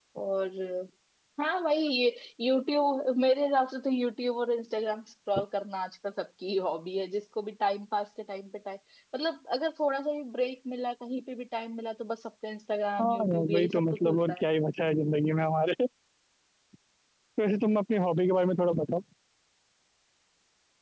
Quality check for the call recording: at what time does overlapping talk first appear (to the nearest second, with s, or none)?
13 s